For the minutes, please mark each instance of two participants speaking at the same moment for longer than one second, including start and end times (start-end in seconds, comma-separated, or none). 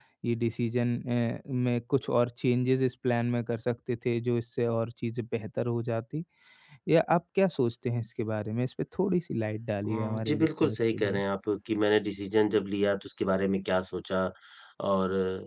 9.8-11.2